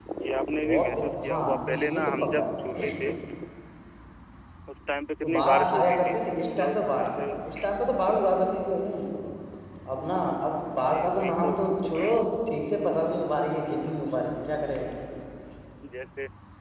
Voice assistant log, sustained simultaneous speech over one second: present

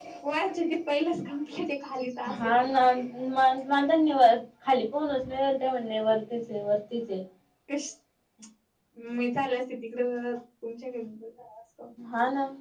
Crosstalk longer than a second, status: none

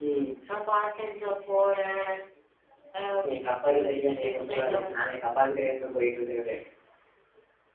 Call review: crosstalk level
present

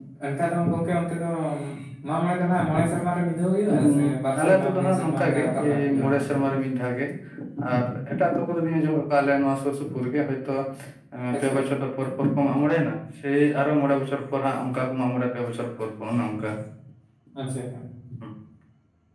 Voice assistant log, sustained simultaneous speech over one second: present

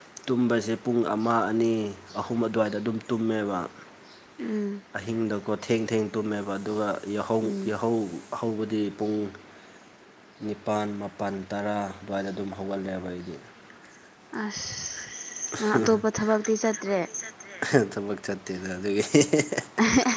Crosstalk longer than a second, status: none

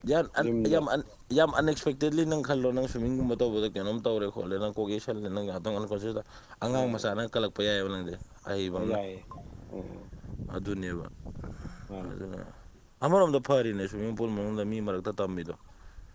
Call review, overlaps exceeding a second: none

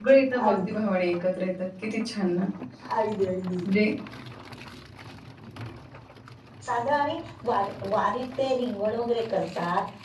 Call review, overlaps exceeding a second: none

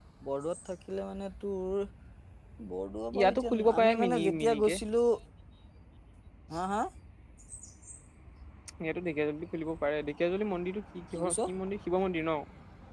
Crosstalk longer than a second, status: present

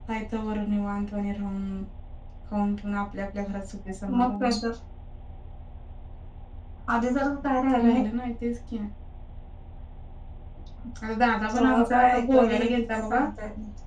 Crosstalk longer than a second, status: present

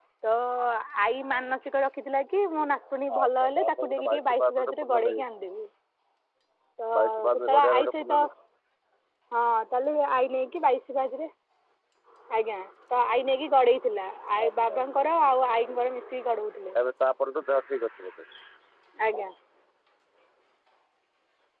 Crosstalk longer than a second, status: present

